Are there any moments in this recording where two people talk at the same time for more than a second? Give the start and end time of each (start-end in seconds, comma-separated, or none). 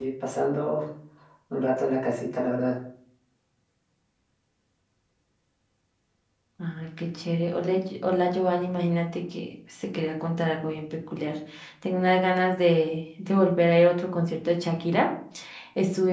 none